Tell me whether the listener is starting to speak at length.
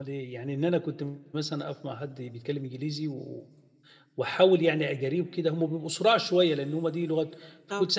No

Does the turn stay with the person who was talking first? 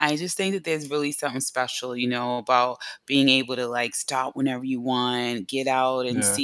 Yes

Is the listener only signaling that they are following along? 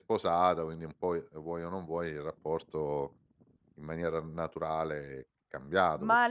No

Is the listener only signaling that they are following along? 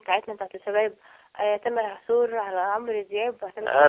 No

